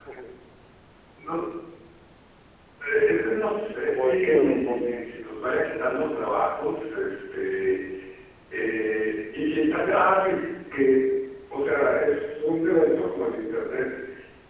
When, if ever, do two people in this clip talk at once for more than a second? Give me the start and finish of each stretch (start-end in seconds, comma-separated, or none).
3.9-5.1